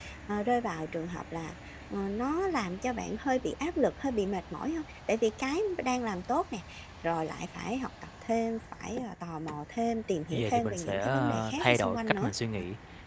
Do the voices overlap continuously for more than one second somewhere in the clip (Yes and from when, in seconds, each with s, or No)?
Yes, from 10.3 s